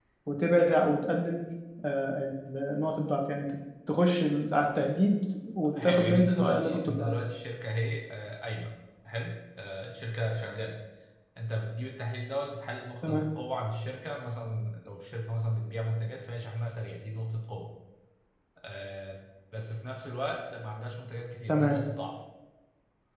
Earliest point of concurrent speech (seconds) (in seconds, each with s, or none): 5.7 s